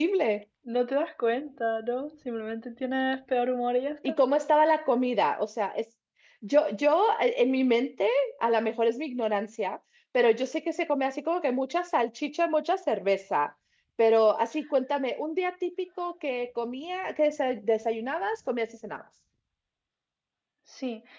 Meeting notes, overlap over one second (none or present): none